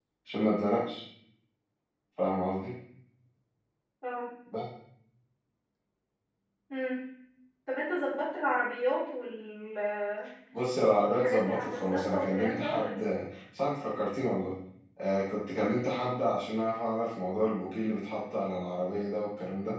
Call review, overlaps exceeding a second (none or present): present